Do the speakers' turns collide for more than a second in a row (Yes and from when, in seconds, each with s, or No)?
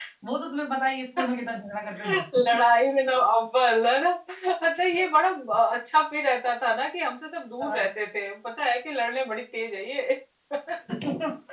No